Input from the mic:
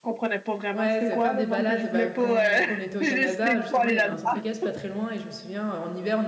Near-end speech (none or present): present